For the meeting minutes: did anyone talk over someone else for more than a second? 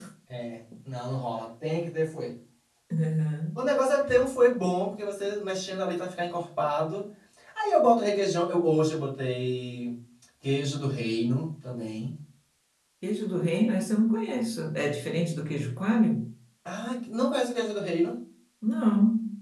No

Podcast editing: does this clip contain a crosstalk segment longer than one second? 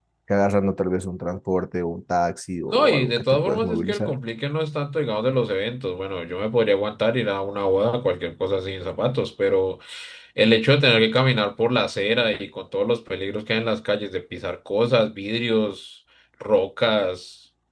Yes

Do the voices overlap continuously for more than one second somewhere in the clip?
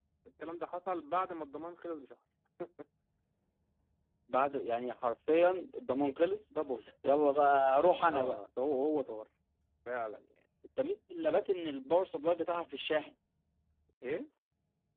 No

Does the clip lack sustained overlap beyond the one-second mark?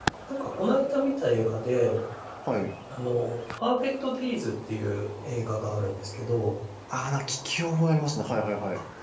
Yes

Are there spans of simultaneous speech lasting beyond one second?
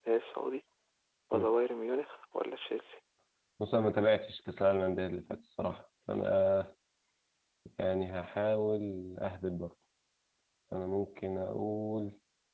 No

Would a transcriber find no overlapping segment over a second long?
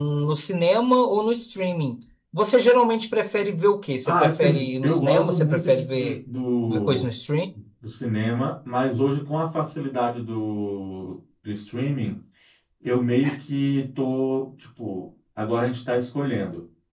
No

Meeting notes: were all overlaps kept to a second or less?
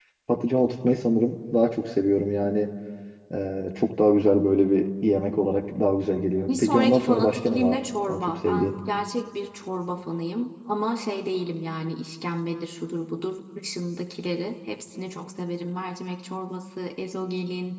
No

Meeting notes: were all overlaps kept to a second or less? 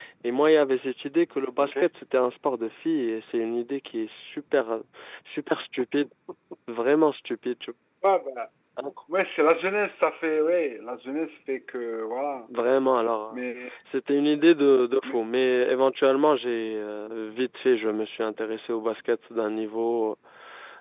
Yes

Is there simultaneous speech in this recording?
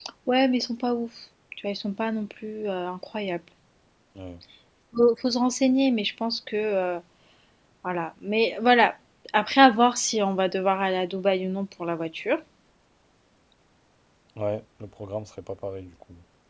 No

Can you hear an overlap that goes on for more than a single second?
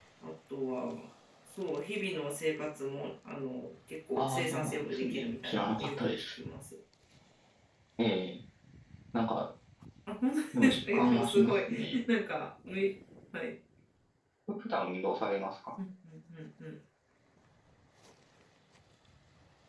Yes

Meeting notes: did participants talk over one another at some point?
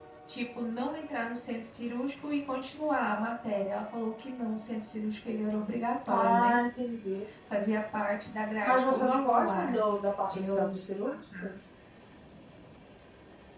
Yes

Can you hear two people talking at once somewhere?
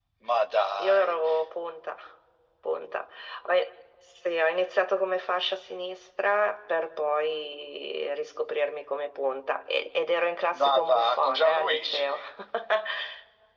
Yes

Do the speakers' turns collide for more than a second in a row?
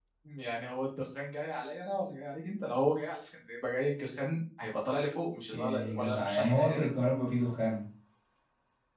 Yes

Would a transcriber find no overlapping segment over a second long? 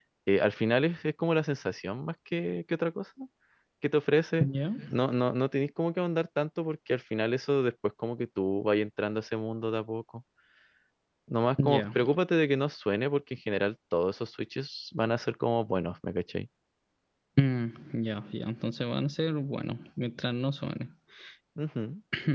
Yes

